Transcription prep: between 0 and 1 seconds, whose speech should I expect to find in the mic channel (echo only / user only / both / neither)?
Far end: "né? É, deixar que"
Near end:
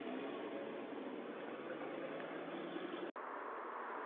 neither